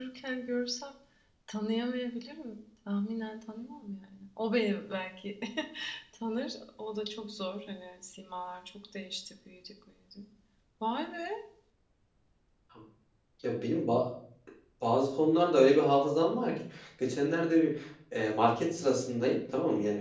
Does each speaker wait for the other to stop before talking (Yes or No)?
Yes